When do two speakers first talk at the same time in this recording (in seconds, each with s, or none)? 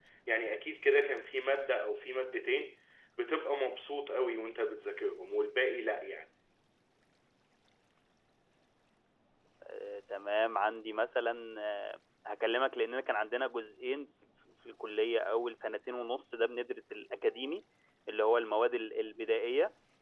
none